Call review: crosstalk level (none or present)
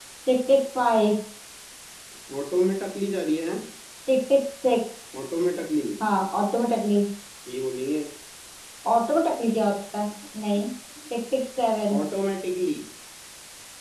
none